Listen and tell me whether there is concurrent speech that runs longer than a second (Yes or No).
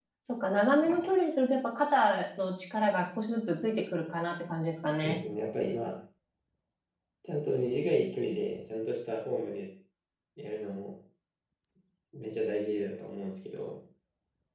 No